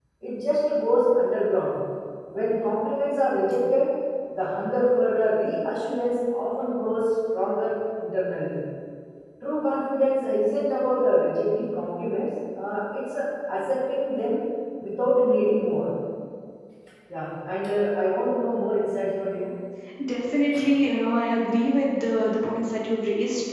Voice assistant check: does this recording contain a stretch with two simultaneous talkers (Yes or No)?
No